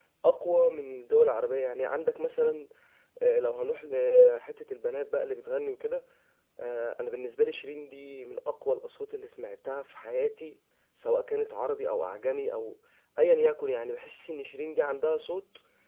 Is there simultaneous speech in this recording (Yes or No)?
No